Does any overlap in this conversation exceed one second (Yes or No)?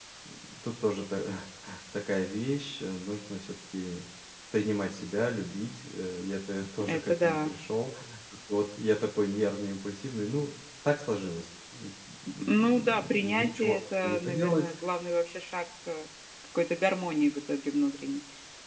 Yes